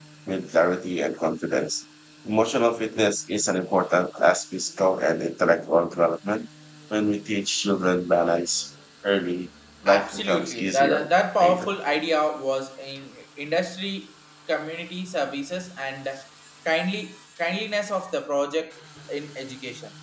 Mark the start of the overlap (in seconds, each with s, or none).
9.9 s